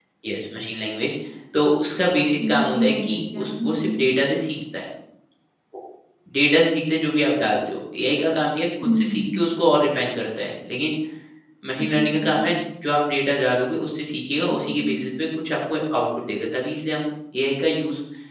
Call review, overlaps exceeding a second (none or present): present